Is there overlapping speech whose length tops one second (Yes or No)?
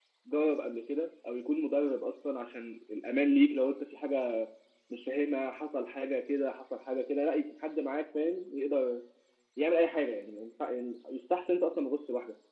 No